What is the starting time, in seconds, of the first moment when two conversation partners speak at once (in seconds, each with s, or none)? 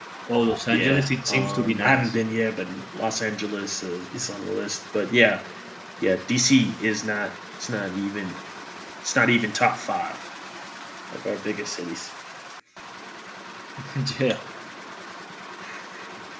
0.7 s